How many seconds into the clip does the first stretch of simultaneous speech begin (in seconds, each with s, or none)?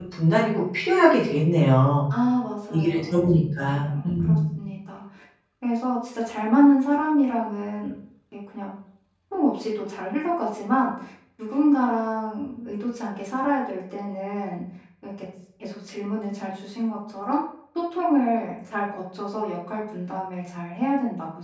2.7 s